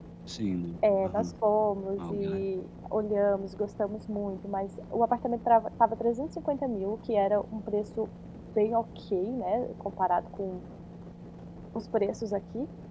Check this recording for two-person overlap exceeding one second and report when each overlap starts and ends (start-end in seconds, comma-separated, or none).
none